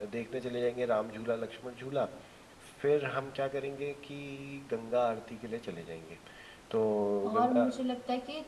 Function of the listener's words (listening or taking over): taking over